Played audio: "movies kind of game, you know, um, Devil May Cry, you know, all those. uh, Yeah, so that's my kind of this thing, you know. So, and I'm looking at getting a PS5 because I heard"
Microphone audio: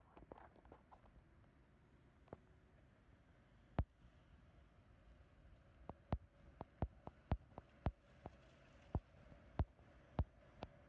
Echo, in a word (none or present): none